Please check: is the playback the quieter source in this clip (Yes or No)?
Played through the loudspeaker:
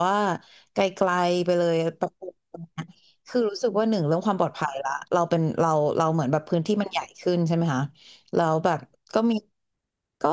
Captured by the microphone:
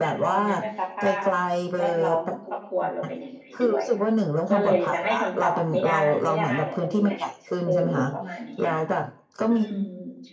No